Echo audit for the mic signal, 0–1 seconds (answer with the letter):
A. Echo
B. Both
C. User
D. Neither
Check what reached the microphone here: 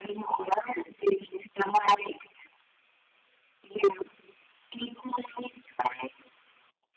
A